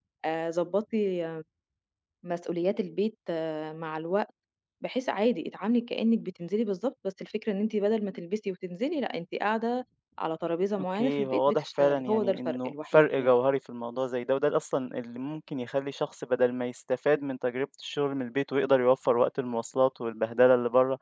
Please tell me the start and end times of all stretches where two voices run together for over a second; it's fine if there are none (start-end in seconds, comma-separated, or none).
10.9-13.3